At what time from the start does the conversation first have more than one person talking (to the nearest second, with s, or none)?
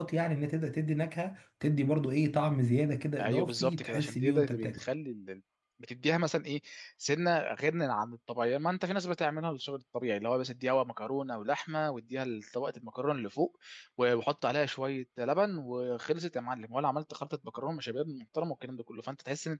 3 s